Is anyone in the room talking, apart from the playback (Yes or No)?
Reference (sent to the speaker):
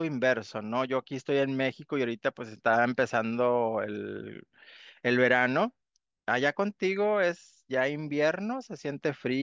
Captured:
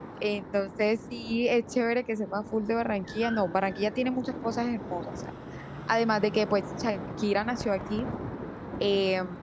Yes